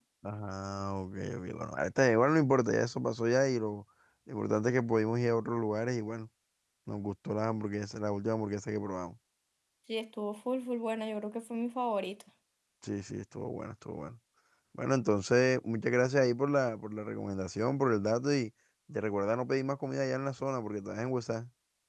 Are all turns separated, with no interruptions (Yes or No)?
Yes